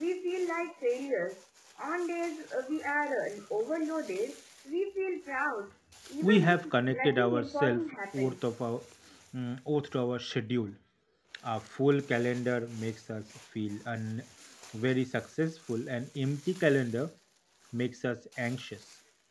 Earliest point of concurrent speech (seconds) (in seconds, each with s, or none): 6.2 s